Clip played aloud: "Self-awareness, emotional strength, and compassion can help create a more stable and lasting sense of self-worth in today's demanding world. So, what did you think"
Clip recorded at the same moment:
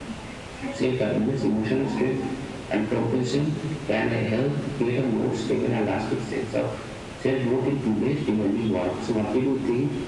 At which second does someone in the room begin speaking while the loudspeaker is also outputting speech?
none

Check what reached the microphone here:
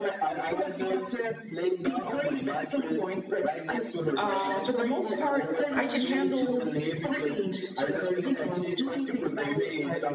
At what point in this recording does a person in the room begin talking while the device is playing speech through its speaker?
4.2 s

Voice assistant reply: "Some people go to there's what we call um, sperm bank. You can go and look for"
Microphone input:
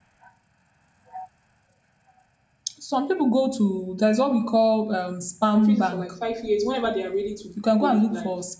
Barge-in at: 5.5 s

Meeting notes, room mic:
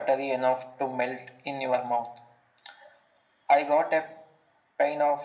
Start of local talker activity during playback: none

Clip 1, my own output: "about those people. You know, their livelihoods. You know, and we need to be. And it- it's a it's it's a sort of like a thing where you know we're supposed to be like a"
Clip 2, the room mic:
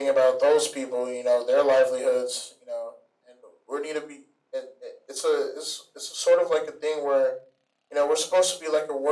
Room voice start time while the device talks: none

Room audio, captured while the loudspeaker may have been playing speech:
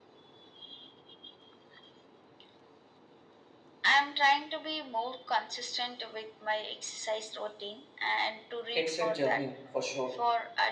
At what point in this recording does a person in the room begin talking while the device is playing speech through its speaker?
8.7 s

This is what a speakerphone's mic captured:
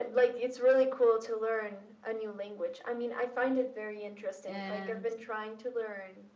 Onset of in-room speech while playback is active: 4.5 s

